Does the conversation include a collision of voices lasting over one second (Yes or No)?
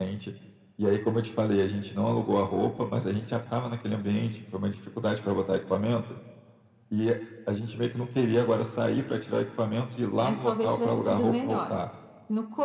Yes